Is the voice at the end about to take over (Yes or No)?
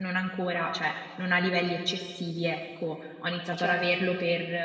No